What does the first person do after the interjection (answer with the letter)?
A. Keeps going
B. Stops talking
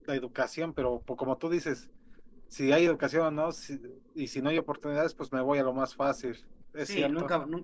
B